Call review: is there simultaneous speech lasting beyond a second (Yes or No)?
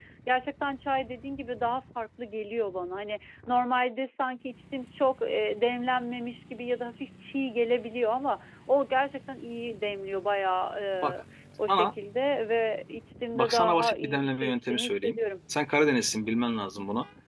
Yes